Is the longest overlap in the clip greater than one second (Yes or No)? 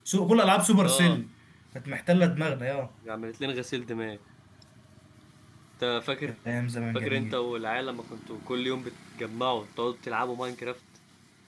No